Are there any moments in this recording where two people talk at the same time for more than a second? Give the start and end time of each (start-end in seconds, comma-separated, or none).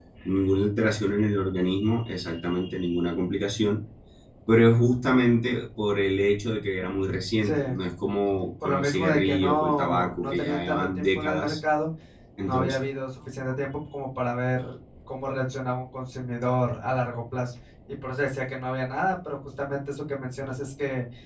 8.6-11.5